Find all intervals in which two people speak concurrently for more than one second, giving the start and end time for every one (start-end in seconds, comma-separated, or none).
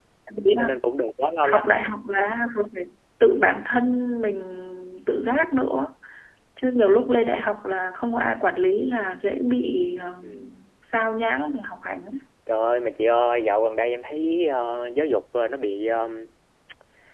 none